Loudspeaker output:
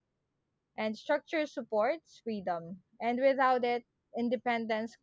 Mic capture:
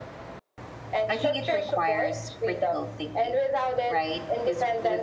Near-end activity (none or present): present